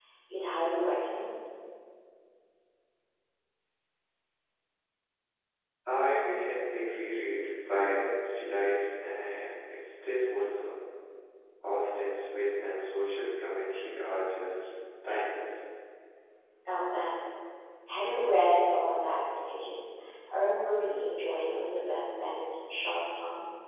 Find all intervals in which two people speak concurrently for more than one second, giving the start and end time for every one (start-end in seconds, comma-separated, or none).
none